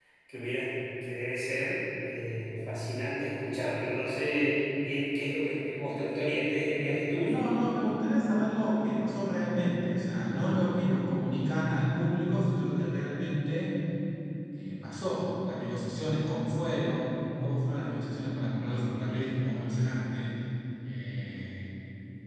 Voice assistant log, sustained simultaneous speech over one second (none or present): none